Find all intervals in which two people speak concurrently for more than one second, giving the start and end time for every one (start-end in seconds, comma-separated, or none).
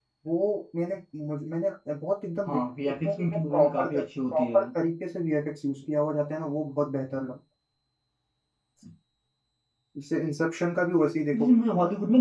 2.4-4.6